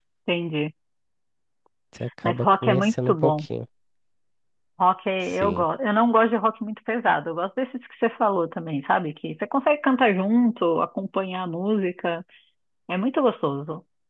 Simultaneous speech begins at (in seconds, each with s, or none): 2.2 s